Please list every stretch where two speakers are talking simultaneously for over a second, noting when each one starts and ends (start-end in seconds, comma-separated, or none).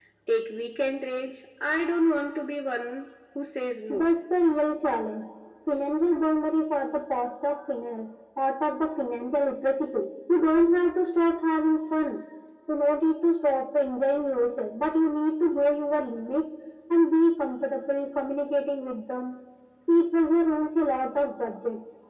none